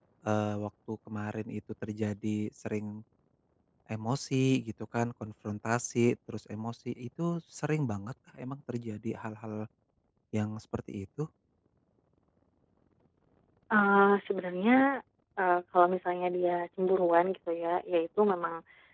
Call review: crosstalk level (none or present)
none